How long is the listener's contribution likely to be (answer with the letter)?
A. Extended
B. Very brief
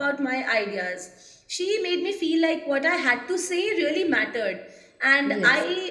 B